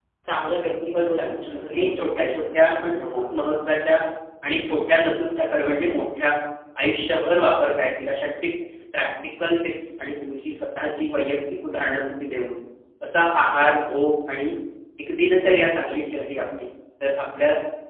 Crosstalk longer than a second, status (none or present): present